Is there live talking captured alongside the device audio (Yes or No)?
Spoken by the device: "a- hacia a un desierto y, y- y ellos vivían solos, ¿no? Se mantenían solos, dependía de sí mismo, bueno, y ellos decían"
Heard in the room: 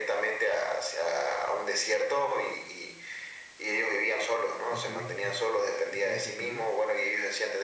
Yes